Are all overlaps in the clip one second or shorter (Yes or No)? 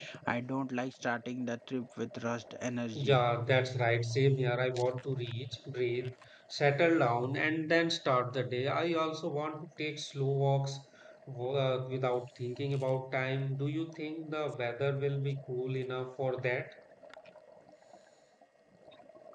Yes